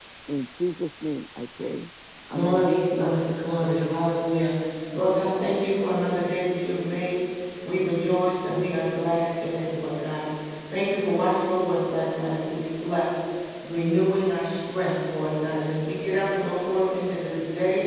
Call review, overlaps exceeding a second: present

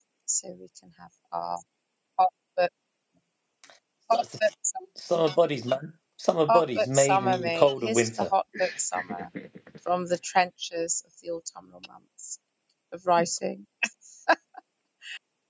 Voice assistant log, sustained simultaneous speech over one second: present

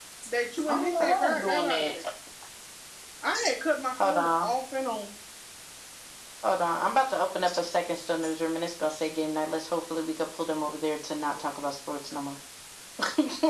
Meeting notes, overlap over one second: present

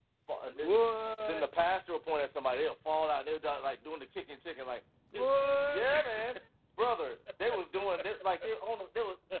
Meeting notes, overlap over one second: none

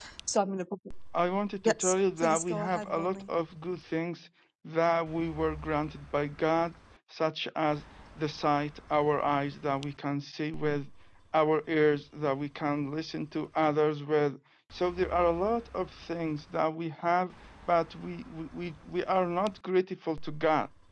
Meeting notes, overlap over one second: present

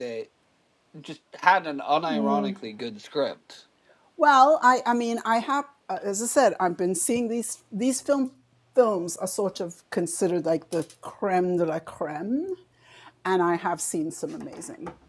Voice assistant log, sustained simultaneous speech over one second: none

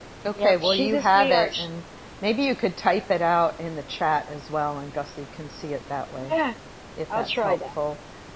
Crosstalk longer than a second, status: present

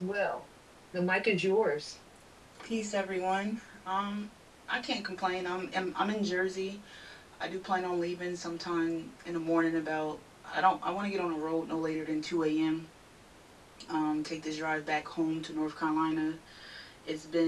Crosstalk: none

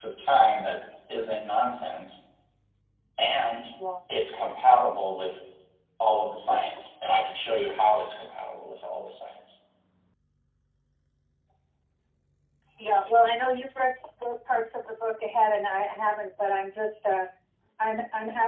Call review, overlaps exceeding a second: none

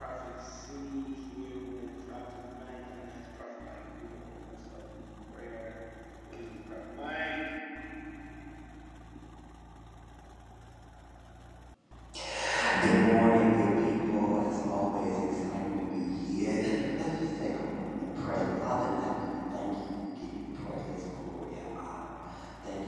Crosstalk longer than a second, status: none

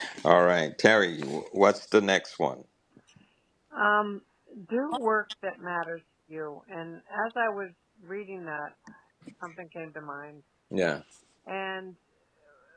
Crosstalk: none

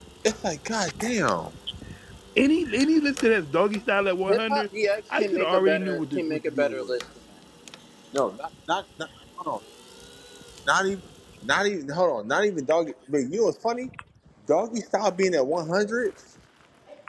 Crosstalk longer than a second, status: present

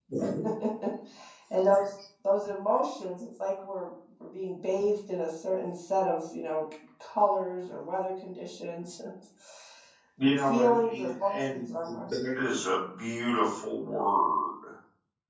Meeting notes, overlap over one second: present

